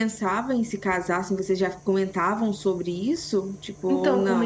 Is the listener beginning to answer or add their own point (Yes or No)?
Yes